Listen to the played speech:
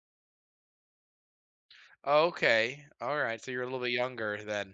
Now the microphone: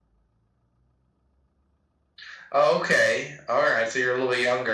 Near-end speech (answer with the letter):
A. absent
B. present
A